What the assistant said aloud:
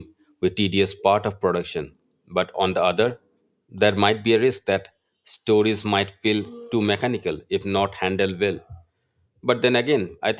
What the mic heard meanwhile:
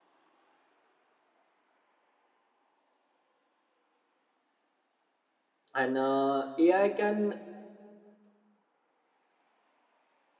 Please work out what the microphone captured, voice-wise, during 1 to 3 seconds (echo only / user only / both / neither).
neither